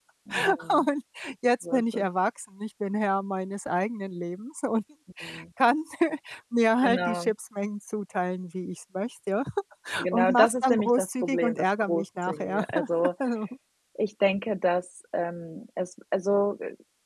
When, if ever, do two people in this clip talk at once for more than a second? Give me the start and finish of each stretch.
10.1-12.6

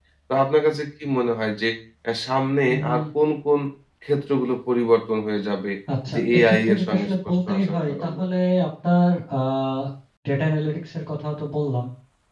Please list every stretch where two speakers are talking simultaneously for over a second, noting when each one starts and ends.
6.1-8.2

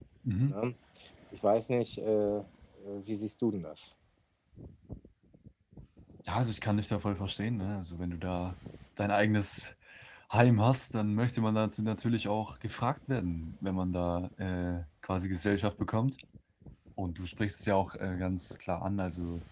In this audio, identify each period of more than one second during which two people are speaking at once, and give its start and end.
none

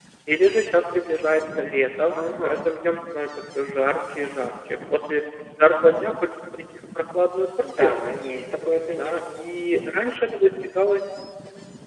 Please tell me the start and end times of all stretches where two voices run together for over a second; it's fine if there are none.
none

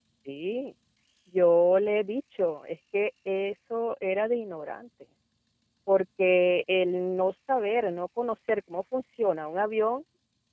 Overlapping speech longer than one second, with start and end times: none

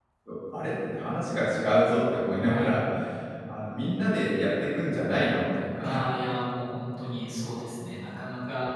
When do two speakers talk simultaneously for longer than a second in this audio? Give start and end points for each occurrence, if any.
none

